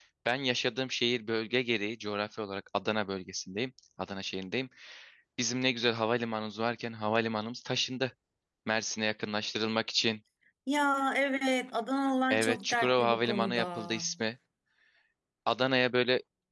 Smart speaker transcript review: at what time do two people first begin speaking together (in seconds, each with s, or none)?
12.3 s